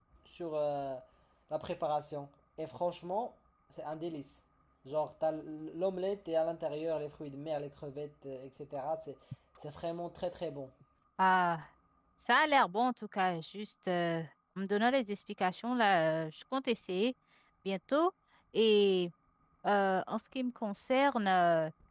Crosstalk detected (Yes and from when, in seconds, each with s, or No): No